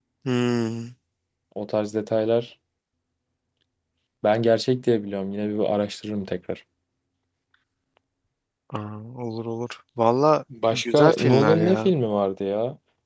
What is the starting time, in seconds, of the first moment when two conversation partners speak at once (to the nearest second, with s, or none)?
11 s